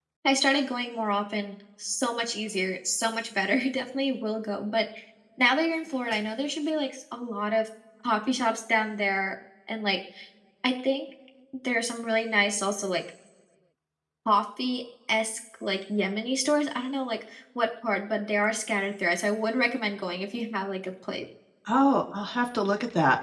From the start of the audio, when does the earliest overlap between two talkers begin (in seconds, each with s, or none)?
none